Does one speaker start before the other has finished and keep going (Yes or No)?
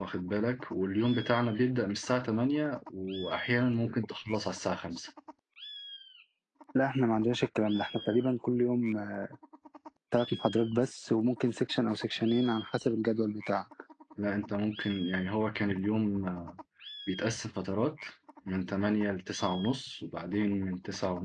No